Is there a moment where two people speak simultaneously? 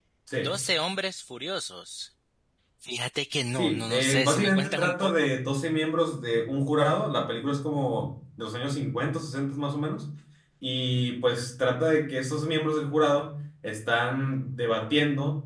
Yes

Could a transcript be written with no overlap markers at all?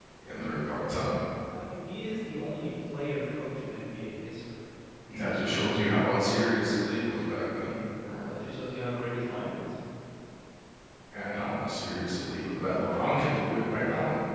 Yes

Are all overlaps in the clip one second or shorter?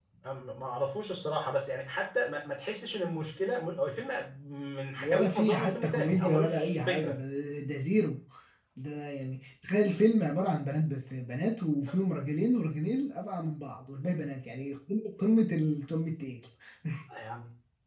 No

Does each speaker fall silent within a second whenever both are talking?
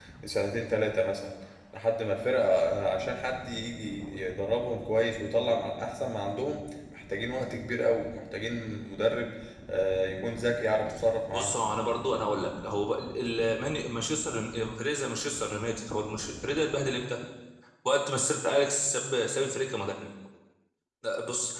Yes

